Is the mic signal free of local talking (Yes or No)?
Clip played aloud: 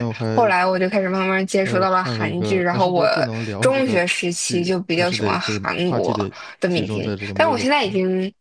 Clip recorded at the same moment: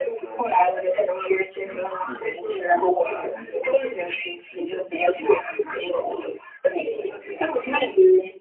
Yes